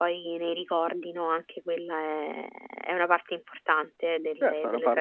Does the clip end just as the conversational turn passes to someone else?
Yes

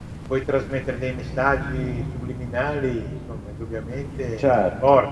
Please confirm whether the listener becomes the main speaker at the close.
Yes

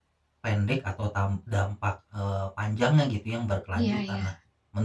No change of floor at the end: Yes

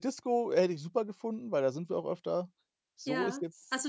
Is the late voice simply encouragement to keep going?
No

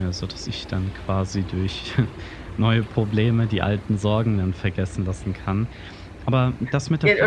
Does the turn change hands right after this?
Yes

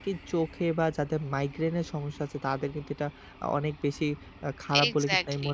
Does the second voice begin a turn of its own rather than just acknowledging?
No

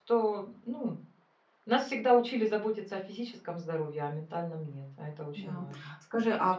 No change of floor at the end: No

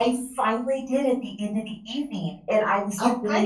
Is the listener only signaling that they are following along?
Yes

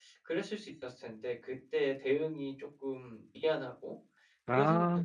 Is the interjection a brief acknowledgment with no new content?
Yes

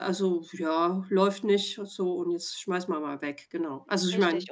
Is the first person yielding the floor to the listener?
Yes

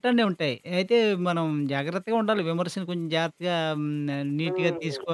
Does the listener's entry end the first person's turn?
Yes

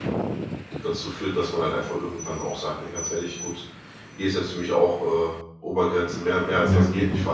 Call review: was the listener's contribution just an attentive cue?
Yes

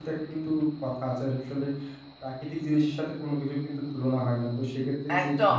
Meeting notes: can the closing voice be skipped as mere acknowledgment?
No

